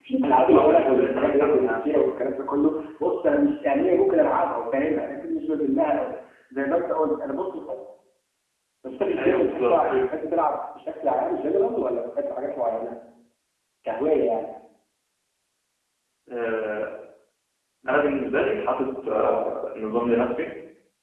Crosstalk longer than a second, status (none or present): present